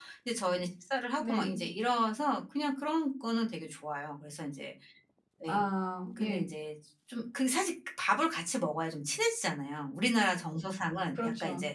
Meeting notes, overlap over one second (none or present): none